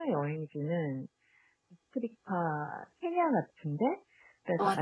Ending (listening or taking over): listening